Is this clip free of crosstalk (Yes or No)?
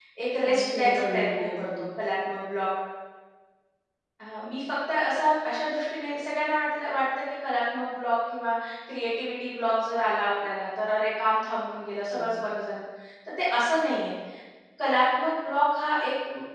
No